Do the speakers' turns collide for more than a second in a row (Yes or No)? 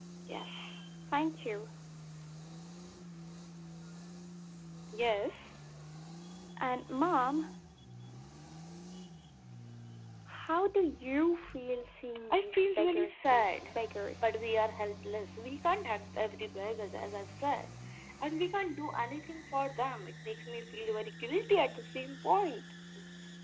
Yes